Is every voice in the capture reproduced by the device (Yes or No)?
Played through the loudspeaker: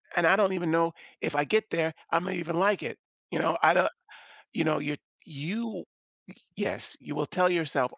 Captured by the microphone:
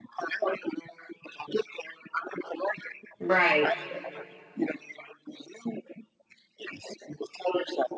No